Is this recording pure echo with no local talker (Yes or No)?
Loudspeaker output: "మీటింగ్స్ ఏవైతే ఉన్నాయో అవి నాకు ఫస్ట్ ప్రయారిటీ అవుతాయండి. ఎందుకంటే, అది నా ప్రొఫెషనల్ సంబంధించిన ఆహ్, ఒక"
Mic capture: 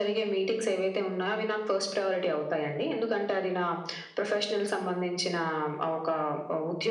Yes